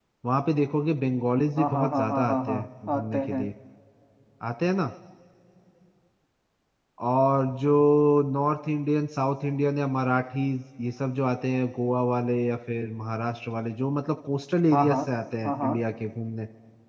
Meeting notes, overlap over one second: present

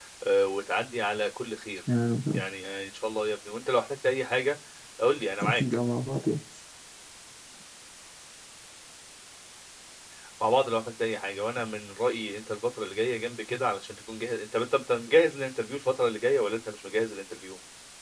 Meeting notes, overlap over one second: none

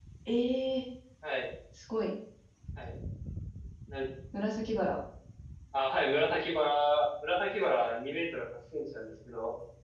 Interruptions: none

